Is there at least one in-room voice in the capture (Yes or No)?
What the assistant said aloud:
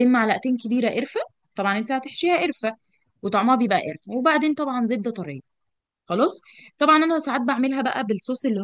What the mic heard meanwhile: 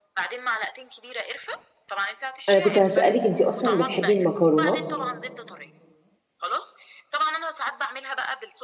Yes